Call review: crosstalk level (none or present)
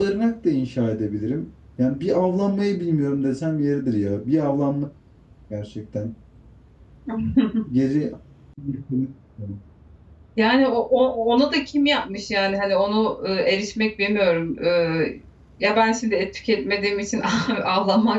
none